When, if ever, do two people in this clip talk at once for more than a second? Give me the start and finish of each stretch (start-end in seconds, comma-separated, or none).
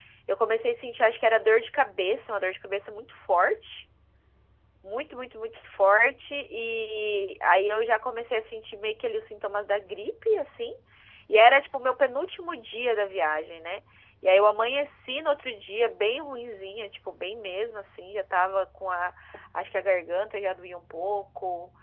none